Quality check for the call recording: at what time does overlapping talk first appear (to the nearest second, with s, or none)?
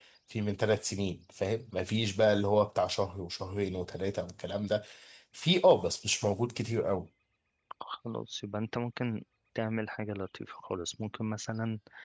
none